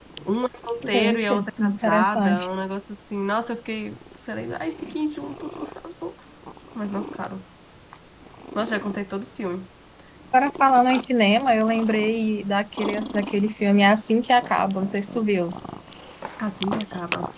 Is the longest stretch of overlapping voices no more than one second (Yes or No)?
No